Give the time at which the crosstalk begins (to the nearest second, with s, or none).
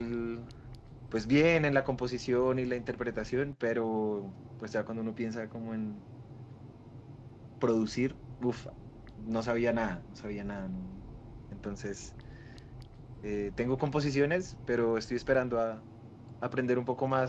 none